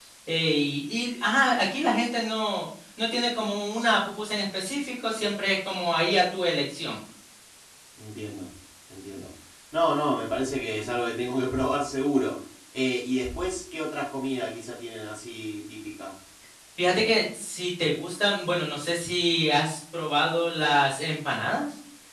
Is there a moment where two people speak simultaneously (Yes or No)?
No